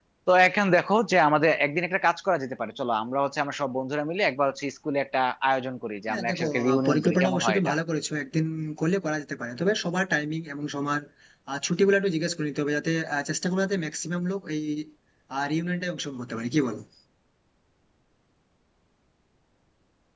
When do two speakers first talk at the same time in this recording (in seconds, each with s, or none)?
6.1 s